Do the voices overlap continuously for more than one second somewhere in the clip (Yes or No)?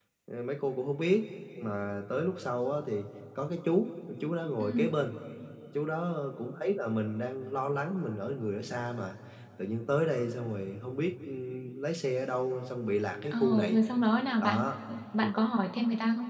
No